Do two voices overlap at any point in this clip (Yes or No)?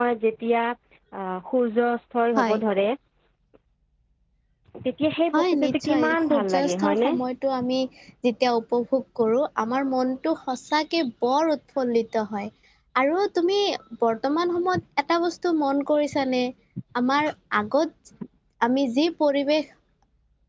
Yes